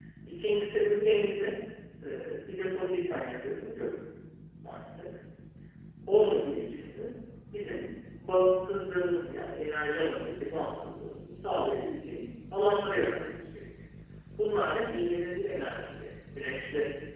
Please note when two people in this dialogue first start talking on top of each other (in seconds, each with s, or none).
none